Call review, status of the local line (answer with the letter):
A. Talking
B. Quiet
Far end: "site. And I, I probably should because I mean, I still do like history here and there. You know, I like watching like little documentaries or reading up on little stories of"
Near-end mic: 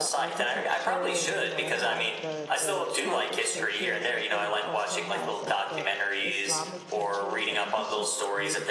A